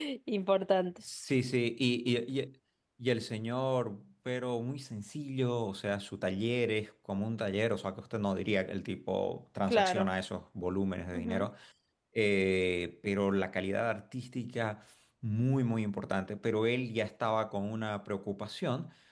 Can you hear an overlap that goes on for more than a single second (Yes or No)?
No